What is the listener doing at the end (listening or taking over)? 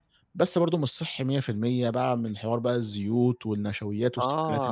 taking over